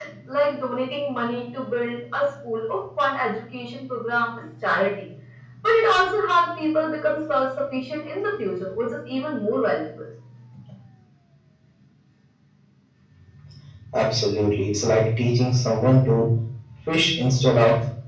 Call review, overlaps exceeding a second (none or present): none